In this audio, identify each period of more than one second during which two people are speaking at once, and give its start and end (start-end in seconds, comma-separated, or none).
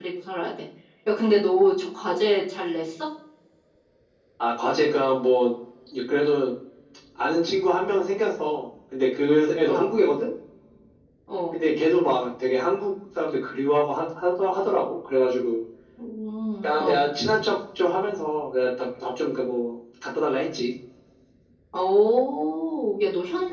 none